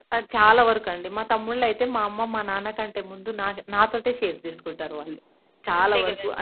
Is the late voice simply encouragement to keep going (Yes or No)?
Yes